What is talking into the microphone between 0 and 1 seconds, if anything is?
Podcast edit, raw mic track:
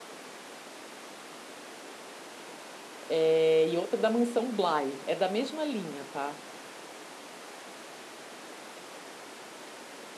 neither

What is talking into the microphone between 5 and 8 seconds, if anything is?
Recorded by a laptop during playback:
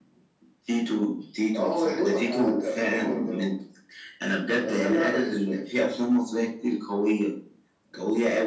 echo only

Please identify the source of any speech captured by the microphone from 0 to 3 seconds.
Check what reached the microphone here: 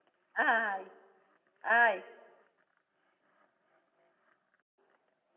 user only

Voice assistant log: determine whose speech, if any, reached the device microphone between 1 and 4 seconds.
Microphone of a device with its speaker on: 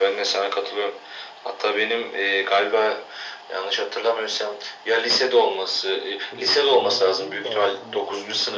echo only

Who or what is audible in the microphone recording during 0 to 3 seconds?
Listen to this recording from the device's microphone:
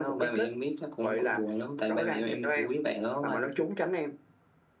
echo only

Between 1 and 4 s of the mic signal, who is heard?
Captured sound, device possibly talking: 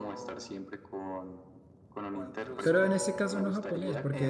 both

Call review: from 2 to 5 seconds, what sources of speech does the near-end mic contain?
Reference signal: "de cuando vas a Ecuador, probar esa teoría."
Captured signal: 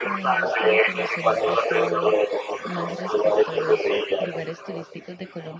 both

